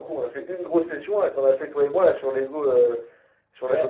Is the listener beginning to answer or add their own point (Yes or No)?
No